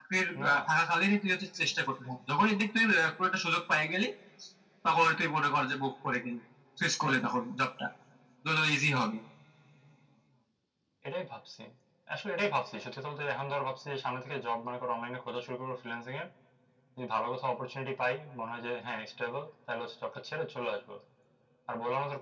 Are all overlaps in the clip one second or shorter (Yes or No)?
Yes